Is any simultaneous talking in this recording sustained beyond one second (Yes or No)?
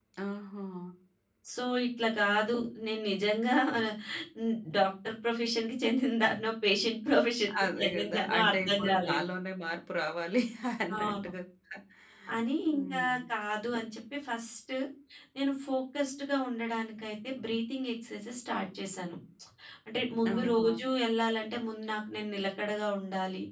Yes